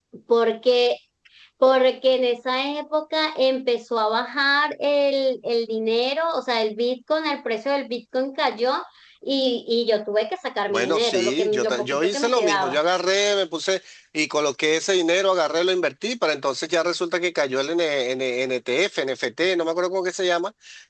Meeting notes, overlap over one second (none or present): present